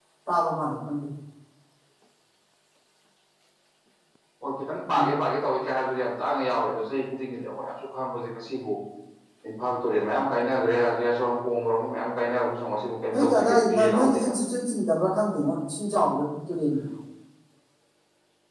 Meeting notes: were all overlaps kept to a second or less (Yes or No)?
No